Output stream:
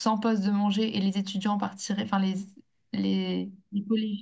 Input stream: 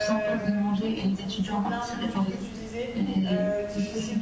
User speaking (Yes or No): Yes